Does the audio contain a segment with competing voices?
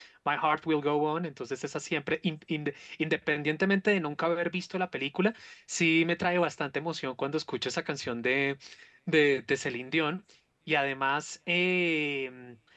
No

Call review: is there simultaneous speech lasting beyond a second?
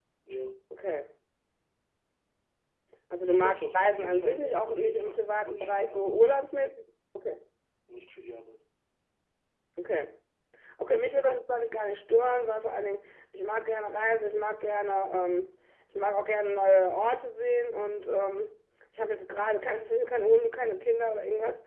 Yes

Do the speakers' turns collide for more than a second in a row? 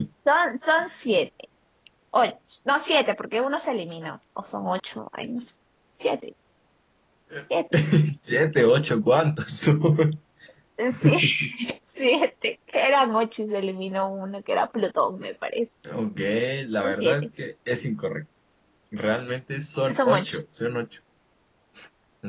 No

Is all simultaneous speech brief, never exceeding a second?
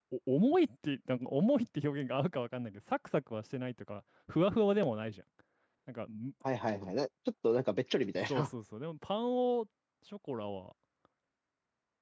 Yes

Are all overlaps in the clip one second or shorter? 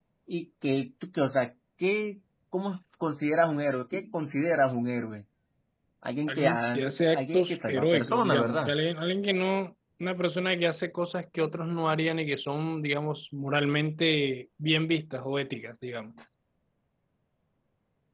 No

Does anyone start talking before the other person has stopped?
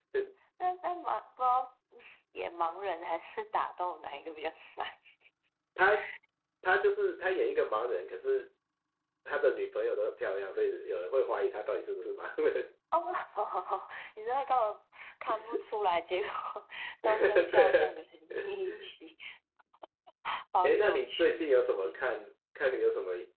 Yes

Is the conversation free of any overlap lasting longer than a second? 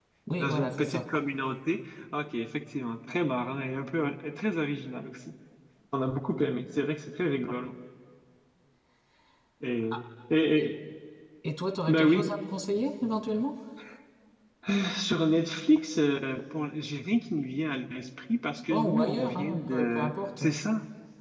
No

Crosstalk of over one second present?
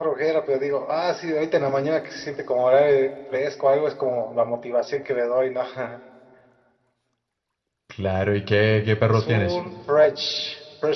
No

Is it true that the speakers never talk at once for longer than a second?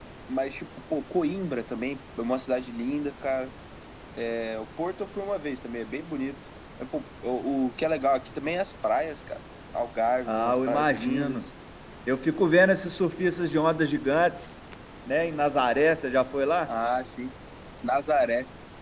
No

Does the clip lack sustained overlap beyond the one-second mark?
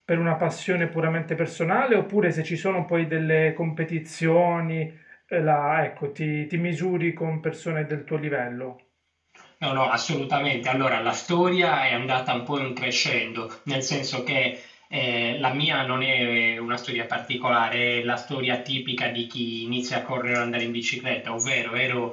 Yes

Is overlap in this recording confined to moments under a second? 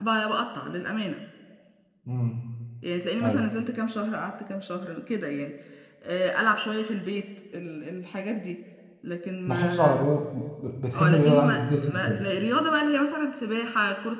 No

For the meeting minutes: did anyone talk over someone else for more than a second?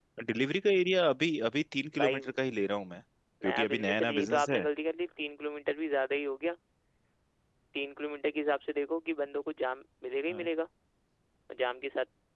Yes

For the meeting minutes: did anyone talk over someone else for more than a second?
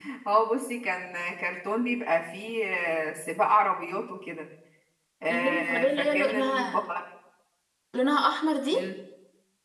Yes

